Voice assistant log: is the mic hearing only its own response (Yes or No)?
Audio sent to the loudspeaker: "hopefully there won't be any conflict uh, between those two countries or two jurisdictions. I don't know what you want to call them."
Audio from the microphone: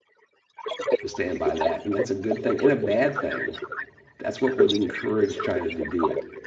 No